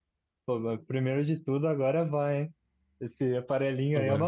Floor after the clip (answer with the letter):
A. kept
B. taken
A